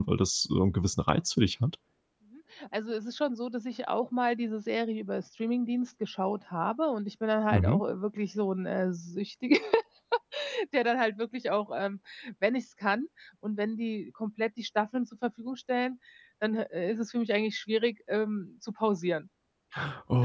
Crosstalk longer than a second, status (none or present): none